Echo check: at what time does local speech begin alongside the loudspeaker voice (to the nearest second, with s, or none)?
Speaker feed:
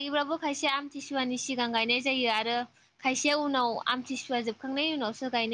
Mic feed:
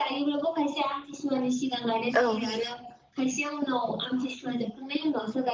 2 s